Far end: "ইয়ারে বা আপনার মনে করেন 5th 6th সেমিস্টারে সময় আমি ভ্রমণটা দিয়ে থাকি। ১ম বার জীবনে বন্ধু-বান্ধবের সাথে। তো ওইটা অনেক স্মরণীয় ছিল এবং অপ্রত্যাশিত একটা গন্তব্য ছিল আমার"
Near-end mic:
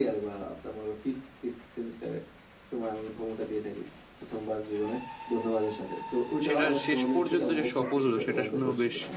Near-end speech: present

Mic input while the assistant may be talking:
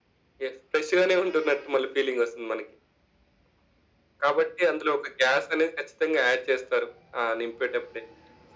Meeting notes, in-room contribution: none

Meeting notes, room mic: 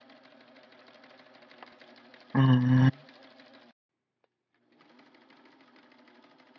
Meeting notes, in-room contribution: present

